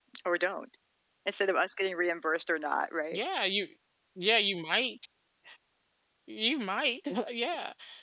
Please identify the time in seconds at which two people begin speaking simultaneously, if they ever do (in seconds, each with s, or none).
none